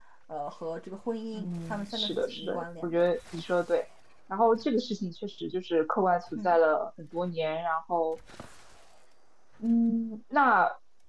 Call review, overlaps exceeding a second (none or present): present